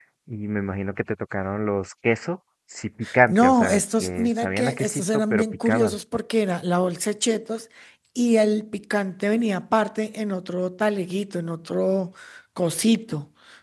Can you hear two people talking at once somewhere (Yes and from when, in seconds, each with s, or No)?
Yes, from 3.0 s